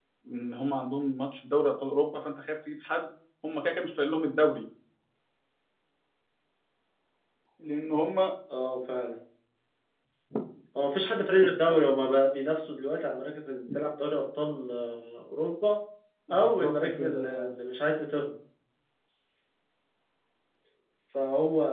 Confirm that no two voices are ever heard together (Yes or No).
No